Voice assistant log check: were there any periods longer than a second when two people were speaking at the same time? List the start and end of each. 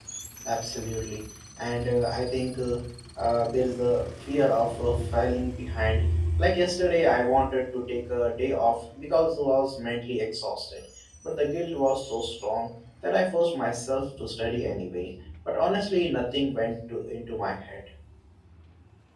none

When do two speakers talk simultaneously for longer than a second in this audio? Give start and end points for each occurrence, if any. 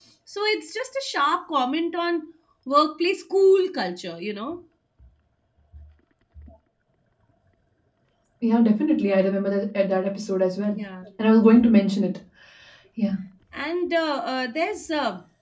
none

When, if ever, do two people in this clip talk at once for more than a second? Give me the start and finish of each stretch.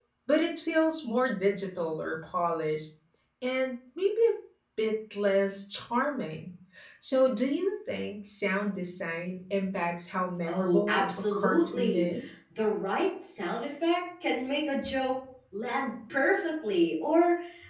10.5-12.3

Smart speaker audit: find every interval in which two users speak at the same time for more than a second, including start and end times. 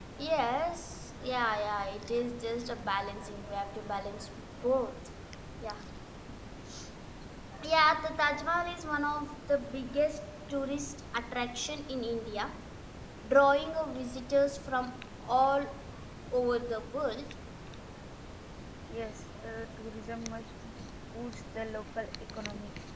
none

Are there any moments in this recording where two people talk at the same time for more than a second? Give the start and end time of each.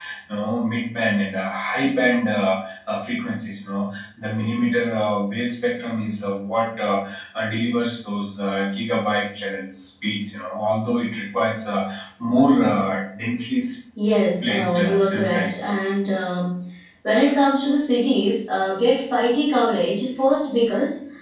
14.4-15.7

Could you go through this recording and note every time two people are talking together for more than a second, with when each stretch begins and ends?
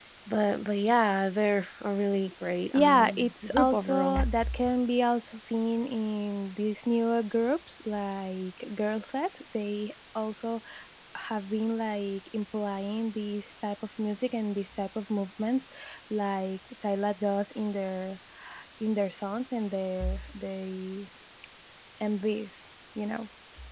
2.7-4.2

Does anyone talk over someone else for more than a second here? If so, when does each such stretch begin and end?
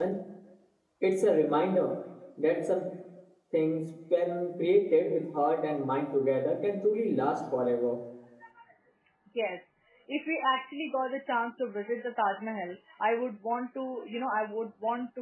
none

